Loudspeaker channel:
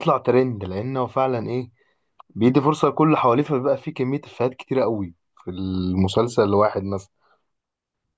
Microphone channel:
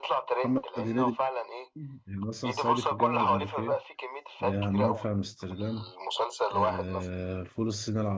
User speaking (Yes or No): Yes